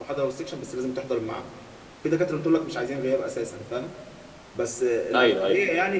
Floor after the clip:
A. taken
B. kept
B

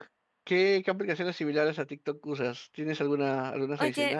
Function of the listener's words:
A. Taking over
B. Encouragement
A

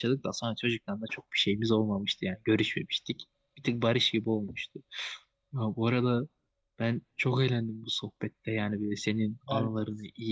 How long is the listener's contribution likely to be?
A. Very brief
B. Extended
A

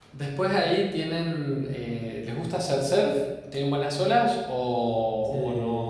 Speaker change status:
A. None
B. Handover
B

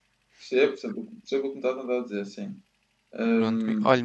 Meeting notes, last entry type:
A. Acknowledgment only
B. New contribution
B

